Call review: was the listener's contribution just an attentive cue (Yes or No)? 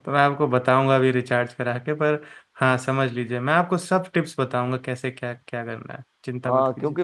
No